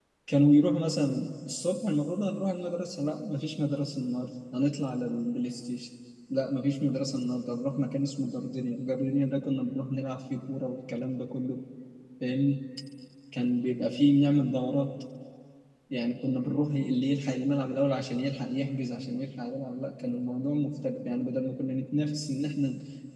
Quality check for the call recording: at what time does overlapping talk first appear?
none

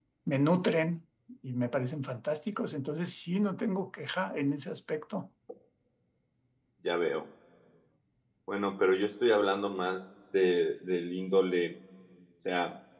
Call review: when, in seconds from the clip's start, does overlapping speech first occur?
none

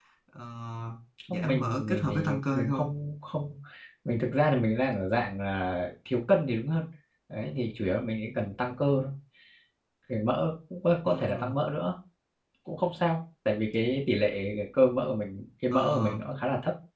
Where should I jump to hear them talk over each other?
1.3 s

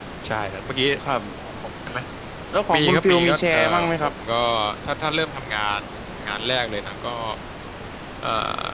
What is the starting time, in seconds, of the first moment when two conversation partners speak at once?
2.7 s

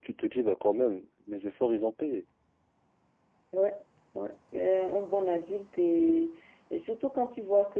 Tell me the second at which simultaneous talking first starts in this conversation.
none

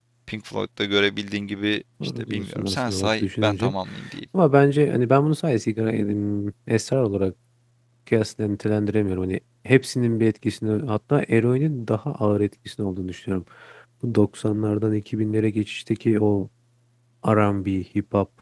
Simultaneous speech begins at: 2.0 s

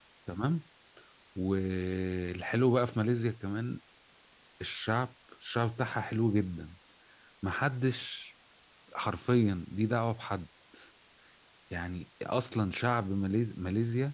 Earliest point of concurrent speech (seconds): none

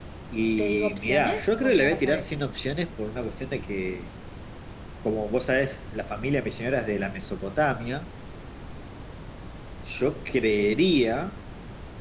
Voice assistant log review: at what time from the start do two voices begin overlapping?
0.6 s

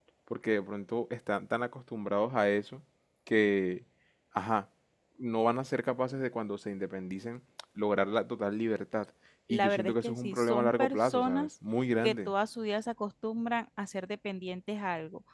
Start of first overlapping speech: 9.5 s

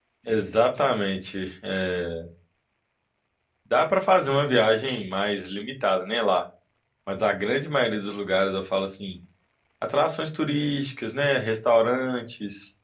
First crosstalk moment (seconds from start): none

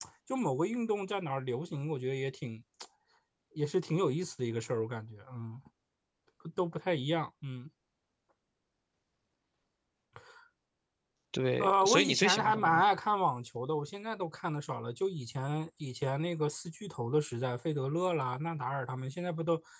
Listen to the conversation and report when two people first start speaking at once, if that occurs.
11.6 s

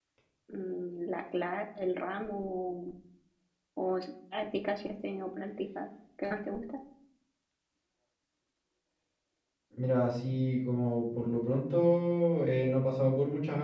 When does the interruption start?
none

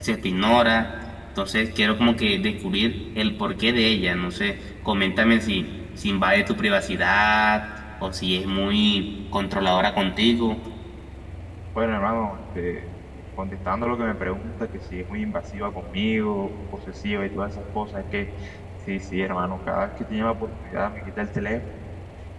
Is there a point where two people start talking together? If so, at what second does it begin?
none

